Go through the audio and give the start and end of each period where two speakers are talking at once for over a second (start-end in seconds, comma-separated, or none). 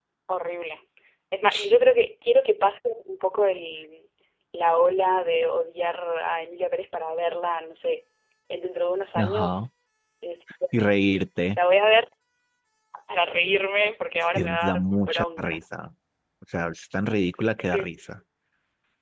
14.3-15.6